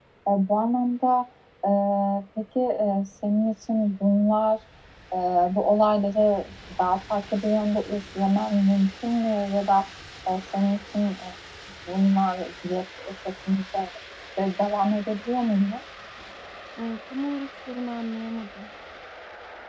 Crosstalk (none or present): none